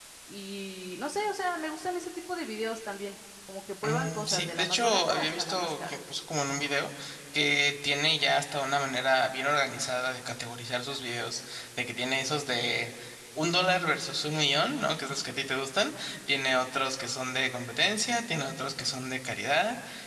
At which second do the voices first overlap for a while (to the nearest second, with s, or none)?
4 s